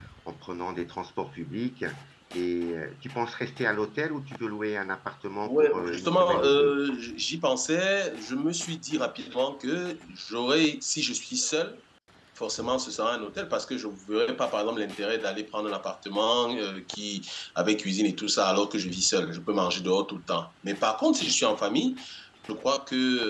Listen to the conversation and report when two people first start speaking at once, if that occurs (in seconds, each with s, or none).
5.4 s